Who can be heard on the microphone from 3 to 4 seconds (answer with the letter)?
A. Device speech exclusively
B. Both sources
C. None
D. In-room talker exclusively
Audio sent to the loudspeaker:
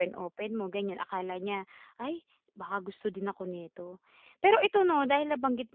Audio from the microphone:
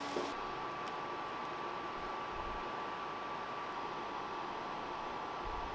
C